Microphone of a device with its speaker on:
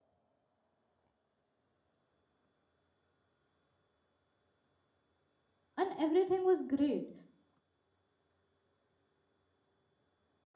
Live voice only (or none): and everything was great